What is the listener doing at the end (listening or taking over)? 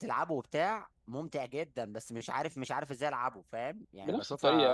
taking over